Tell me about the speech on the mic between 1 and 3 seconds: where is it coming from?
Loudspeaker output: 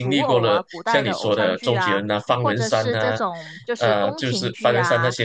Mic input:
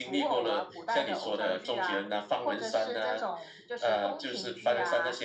echo only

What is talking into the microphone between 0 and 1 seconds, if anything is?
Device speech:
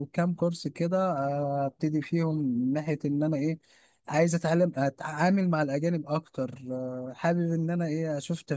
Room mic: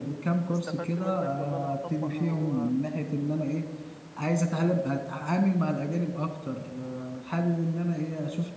both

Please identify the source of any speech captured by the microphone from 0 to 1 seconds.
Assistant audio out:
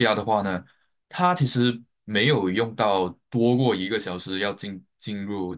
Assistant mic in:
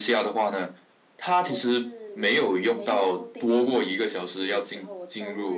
echo only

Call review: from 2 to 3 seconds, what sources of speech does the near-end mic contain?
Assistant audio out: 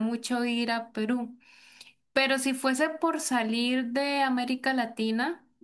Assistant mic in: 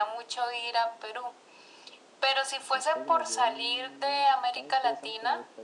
both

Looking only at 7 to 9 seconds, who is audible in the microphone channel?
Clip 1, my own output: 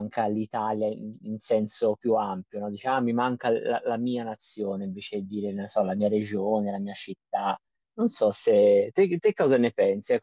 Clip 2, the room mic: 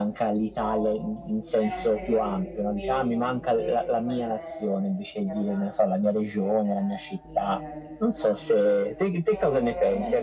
both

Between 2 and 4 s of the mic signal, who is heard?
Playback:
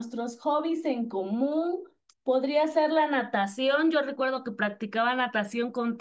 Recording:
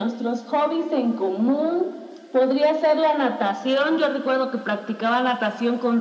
echo only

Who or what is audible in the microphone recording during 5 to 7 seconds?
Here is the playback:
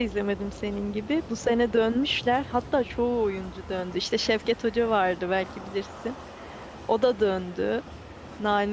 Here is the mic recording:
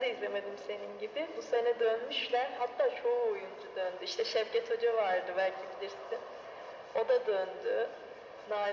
echo only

